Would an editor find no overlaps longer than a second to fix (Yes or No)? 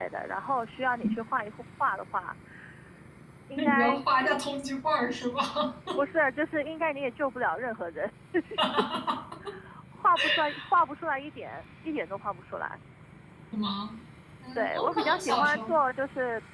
No